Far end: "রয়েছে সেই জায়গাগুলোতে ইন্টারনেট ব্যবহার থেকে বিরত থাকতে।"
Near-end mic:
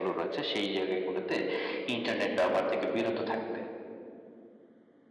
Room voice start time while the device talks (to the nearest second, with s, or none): none